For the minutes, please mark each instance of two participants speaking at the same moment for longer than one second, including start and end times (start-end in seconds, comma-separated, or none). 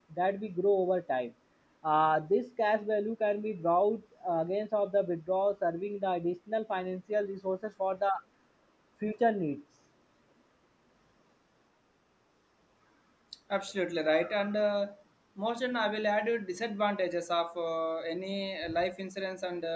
none